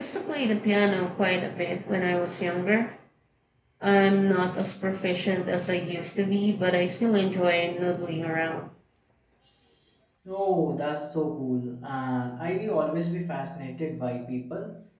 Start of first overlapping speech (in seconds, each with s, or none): none